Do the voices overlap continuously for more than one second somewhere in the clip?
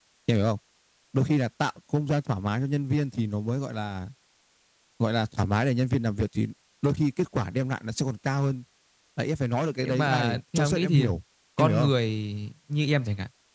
Yes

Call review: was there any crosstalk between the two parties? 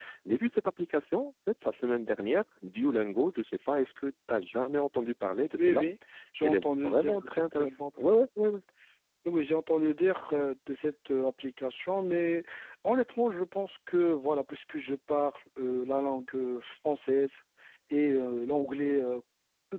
Yes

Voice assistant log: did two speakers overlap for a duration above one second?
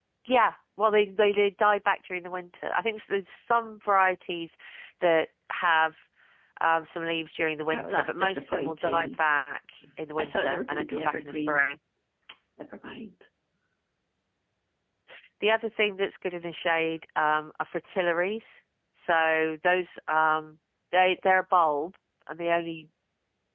Yes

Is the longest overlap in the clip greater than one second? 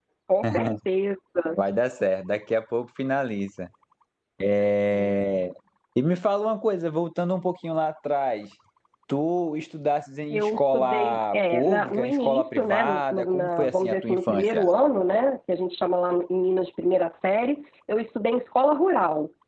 Yes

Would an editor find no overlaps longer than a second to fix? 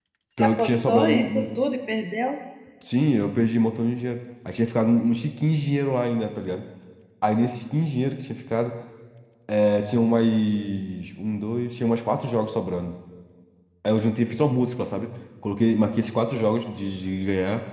No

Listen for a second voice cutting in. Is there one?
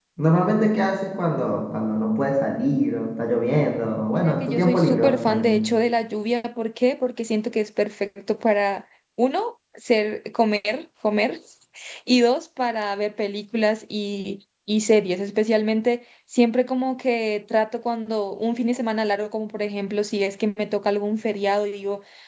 Yes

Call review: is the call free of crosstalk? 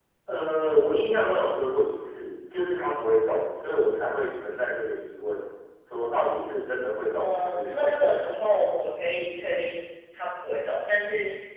No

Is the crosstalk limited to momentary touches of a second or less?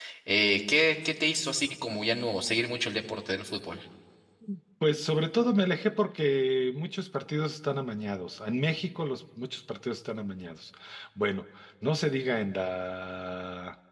Yes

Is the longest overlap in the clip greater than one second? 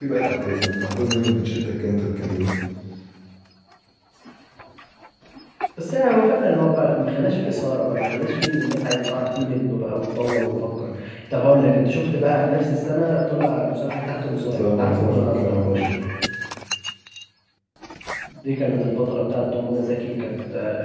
Yes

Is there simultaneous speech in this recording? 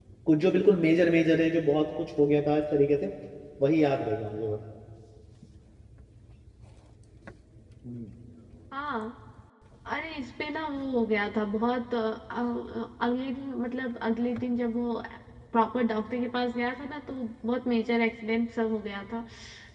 No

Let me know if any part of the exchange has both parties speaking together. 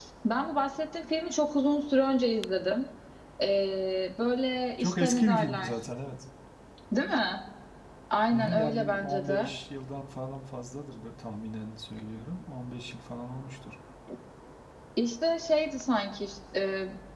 Yes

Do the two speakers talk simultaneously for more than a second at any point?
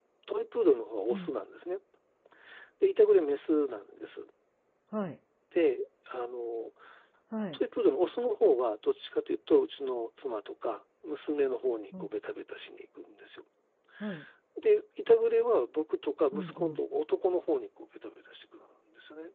No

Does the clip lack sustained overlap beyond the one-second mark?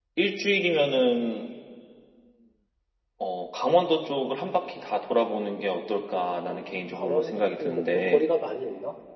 No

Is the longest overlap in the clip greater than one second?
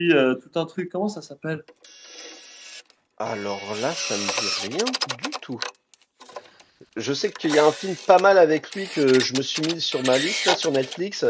No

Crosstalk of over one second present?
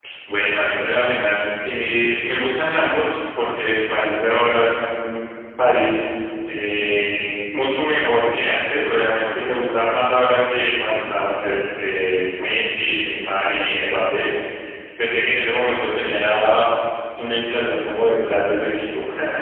No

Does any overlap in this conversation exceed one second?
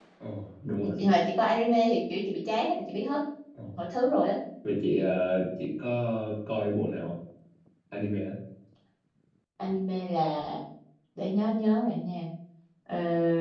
No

